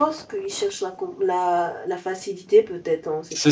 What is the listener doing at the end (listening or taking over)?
taking over